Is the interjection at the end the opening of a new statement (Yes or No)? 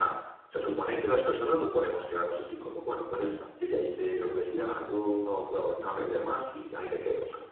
Yes